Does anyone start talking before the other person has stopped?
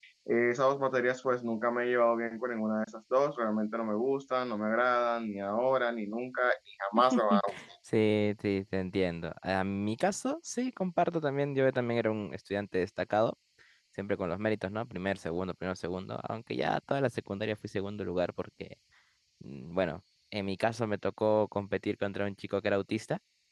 No

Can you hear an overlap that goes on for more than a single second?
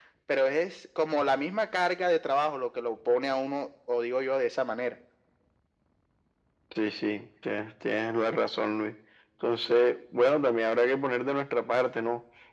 No

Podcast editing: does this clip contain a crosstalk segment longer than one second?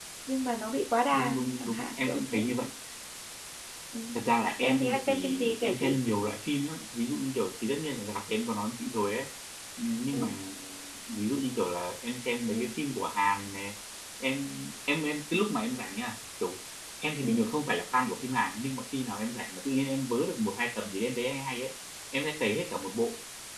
Yes, from 1.1 s

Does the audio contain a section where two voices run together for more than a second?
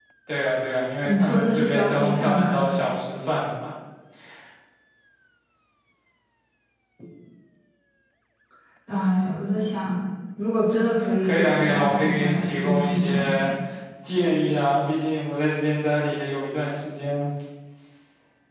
Yes, from 1.0 s

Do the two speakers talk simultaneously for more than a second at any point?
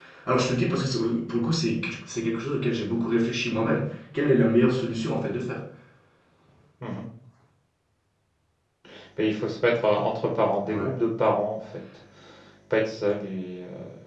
No

